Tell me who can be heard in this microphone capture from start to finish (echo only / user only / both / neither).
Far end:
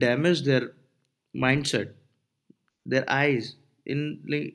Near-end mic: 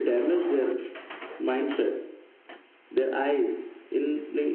echo only